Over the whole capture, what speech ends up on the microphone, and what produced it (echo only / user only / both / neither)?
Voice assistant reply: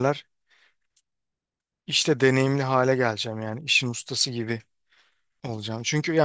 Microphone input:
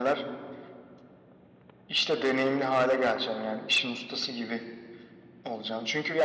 echo only